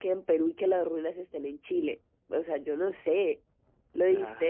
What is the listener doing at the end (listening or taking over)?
listening